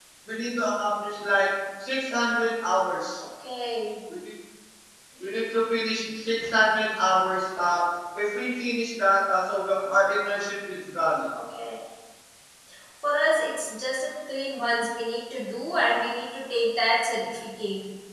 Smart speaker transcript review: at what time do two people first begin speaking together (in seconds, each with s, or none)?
none